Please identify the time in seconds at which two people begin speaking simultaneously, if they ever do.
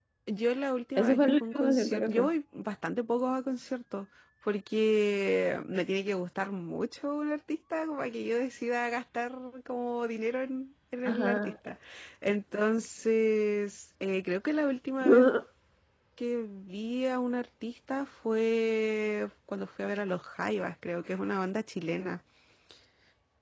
1 s

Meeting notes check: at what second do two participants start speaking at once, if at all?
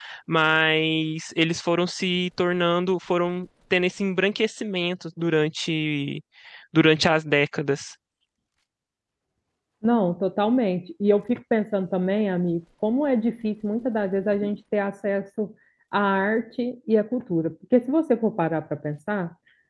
none

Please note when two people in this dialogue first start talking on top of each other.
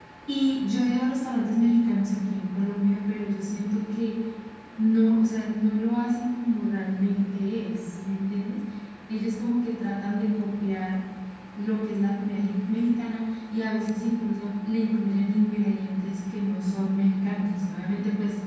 none

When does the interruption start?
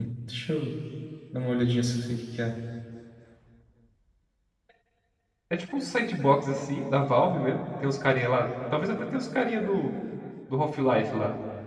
none

